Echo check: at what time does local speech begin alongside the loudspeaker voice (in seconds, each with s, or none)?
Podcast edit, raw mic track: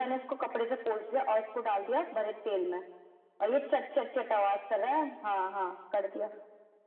none